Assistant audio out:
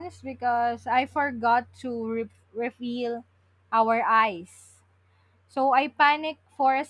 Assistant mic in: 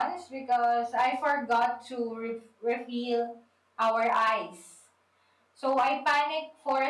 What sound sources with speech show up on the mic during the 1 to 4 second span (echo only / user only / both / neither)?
echo only